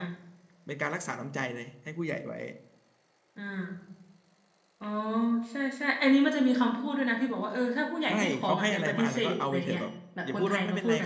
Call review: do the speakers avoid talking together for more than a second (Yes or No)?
No